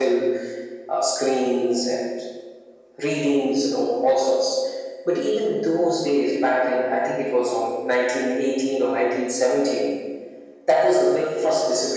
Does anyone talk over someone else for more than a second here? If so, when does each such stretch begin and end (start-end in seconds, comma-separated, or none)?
none